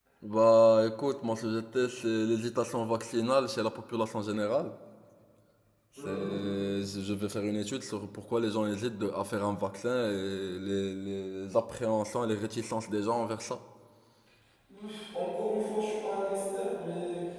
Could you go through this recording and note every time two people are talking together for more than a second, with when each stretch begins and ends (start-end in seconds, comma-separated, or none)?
none